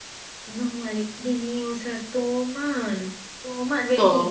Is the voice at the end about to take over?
No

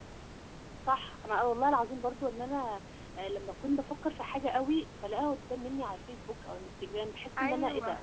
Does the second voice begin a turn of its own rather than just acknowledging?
No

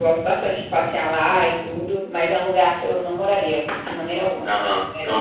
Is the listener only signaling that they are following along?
No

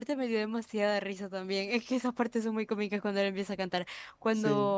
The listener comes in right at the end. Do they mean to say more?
No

